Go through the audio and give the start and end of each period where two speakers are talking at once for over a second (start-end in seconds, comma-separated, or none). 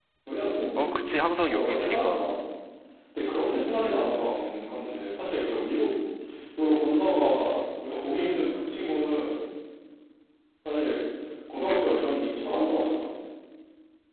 0.8-2.2